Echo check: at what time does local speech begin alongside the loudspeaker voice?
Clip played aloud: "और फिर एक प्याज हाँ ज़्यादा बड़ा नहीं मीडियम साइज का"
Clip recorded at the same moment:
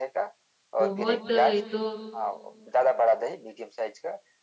0.8 s

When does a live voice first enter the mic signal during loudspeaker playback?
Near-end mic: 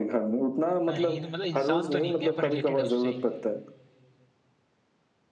0.9 s

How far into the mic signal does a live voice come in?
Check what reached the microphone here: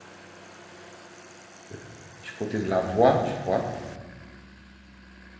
1.7 s

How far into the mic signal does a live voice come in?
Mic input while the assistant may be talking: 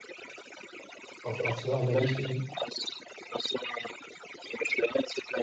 1.2 s

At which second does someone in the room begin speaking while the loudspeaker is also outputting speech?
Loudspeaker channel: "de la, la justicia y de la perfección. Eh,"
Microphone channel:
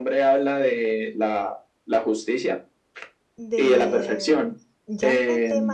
3.4 s

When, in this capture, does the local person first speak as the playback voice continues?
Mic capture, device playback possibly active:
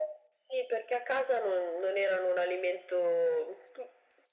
none

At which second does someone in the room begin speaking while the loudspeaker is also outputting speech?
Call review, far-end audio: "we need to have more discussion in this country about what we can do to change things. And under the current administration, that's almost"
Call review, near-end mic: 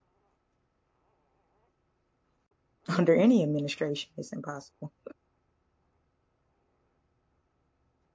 3.0 s

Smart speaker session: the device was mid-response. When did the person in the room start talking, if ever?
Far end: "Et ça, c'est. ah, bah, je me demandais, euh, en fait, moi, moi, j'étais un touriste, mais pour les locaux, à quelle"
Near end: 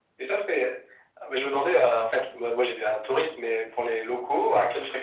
none

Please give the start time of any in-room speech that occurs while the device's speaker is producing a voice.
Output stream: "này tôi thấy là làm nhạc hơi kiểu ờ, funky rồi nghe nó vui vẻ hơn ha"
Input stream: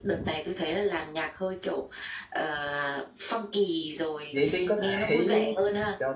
4.3 s

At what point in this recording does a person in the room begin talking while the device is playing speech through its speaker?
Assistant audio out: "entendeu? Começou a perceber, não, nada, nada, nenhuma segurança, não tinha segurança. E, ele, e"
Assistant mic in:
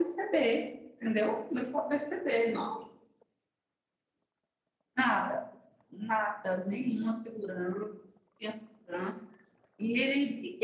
none

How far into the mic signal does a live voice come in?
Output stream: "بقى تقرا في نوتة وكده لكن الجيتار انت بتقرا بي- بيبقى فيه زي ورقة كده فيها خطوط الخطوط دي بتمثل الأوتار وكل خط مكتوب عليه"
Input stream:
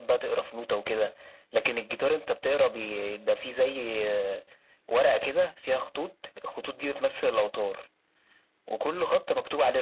none

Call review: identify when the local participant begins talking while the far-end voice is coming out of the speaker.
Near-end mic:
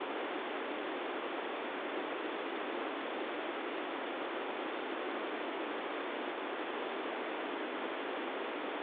none

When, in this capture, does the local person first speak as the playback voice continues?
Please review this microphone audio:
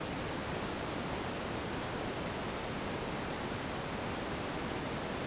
none

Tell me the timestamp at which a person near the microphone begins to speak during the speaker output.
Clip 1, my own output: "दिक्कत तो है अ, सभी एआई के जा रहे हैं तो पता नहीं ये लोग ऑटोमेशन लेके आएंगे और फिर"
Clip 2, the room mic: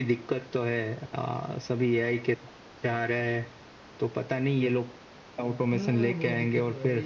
5.7 s

